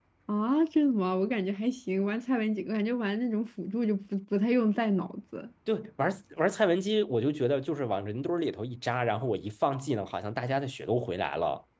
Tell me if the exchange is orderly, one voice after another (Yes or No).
Yes